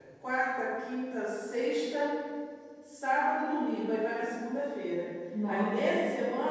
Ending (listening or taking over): listening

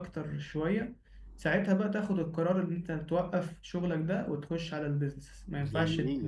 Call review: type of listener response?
taking over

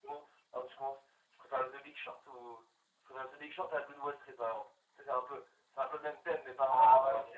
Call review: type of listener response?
taking over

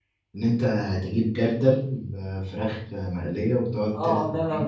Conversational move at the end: taking over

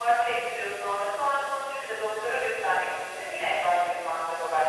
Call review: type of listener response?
taking over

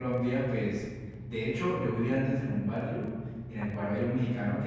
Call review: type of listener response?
listening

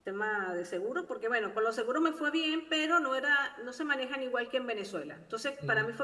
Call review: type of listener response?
listening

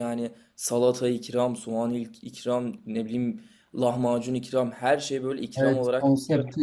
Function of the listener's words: taking over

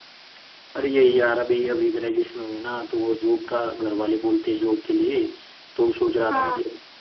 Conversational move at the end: listening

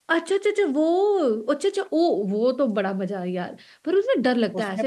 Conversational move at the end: taking over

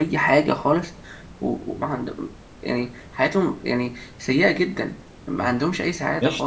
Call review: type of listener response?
taking over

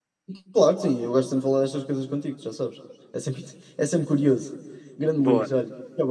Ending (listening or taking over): listening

